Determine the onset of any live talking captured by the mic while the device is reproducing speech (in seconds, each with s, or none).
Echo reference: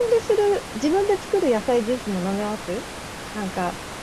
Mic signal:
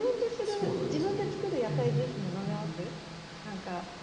0.4 s